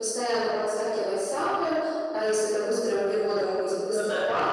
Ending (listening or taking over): listening